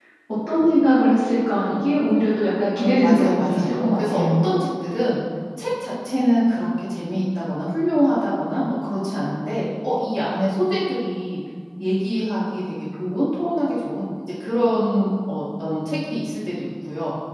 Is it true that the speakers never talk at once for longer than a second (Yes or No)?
No